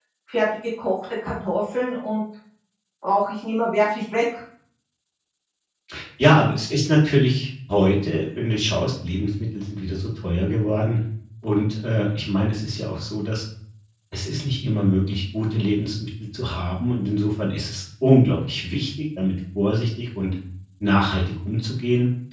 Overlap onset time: none

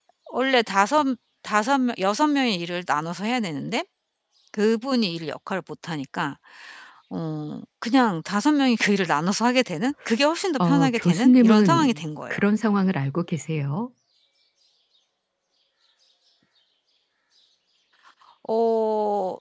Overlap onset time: 10.6 s

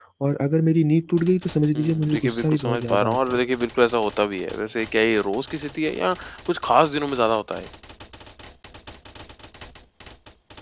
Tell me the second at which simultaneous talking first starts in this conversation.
1.8 s

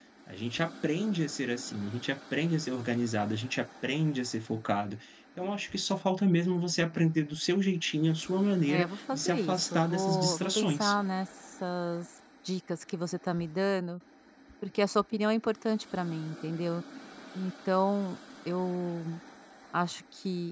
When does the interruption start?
8.7 s

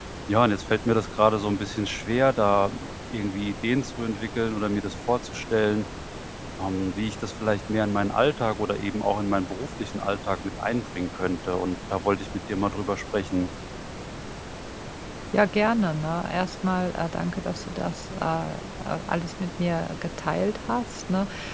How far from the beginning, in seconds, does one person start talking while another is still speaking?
none

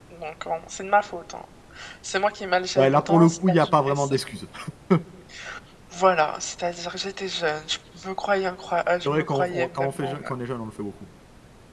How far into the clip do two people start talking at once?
2.8 s

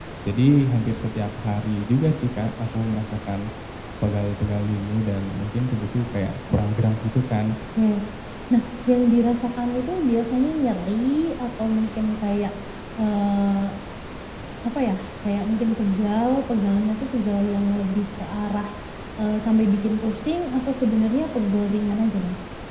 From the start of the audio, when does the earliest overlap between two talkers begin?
none

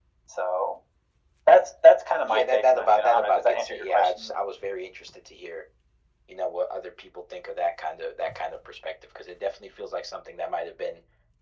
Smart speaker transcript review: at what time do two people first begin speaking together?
2.3 s

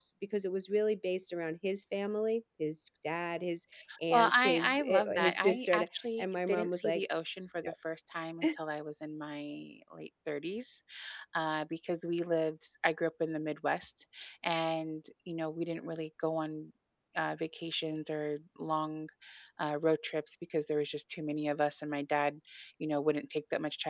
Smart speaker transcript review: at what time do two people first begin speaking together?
3.9 s

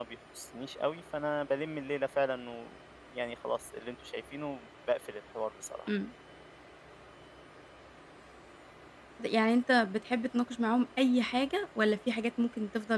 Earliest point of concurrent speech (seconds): none

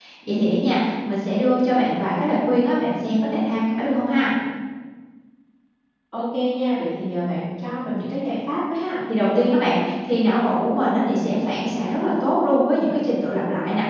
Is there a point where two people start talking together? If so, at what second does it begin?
none

